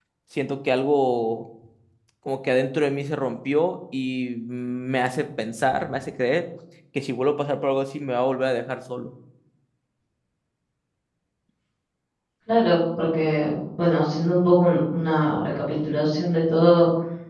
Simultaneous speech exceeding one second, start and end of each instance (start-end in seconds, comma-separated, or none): none